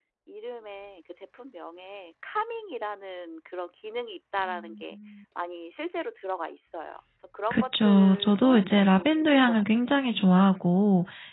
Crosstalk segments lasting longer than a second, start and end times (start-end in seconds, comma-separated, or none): 7.5-10.0